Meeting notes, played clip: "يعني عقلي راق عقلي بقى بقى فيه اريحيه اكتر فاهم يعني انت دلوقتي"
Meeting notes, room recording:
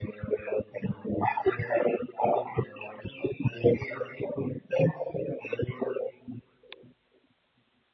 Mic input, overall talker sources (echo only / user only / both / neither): echo only